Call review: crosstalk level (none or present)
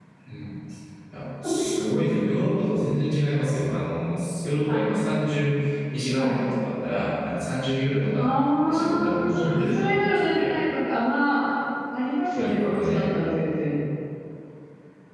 present